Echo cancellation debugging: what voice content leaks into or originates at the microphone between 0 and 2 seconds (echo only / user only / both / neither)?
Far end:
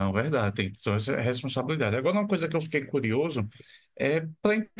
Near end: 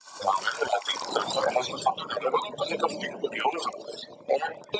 echo only